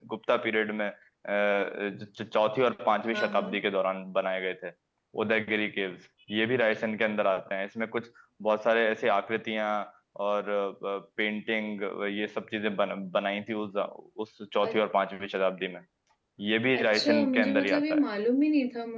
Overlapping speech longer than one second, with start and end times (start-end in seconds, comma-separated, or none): 16.8-18.0